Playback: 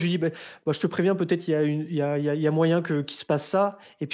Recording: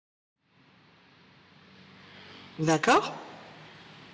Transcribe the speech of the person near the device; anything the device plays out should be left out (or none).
D'accord.